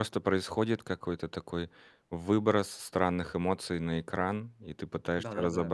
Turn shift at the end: No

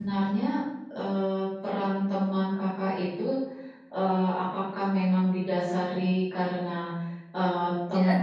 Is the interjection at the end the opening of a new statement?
No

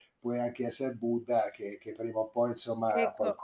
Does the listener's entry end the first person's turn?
Yes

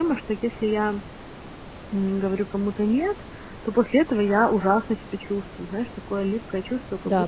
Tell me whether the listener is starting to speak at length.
No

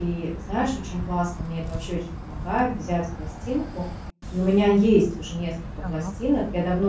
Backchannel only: Yes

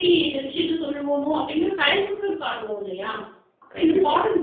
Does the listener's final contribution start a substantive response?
No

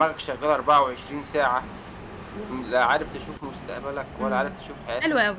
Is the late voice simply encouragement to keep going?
No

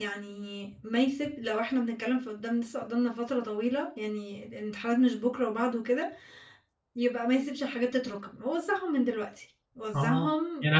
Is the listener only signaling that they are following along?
No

